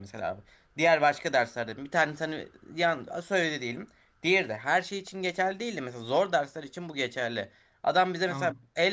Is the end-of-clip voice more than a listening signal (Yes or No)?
No